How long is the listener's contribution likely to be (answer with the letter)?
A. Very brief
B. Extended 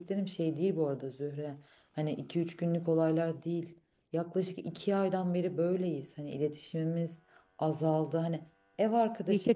B